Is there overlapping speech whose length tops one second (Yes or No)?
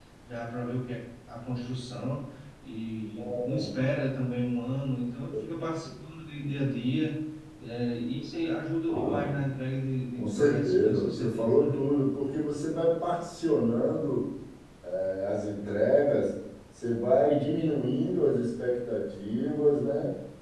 Yes